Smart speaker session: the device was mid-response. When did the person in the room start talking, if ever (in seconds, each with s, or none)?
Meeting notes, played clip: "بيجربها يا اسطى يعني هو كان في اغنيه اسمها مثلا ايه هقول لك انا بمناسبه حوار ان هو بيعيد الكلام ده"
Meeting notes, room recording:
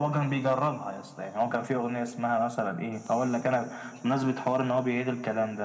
none